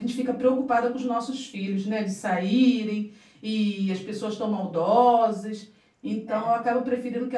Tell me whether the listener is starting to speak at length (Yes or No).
No